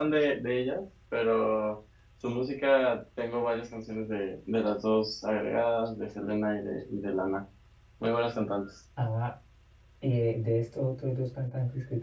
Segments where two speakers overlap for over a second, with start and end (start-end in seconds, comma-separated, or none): none